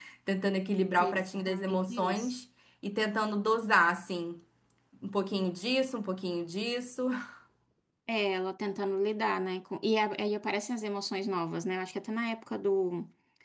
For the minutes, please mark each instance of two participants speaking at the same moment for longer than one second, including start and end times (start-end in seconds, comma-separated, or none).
1.0-2.3